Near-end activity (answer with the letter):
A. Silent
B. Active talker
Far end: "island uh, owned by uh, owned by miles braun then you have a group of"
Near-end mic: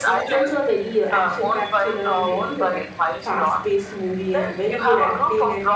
B